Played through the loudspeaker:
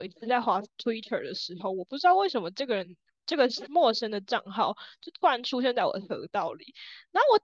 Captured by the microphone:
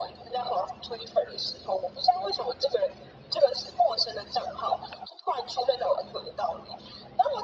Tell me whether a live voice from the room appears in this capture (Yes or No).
No